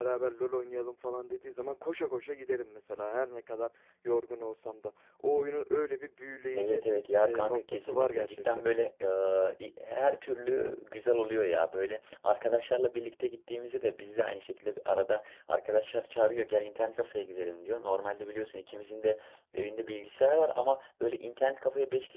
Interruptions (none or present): present